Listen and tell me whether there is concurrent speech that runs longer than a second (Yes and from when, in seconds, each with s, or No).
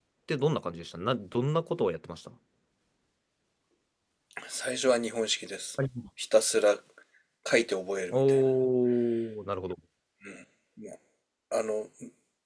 No